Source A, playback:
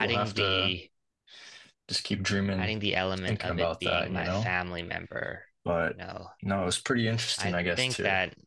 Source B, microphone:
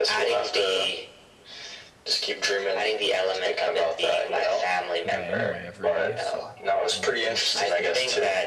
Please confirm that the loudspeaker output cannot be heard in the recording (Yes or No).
No